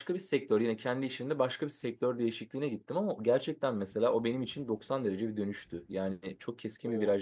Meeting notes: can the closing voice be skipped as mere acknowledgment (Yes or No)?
Yes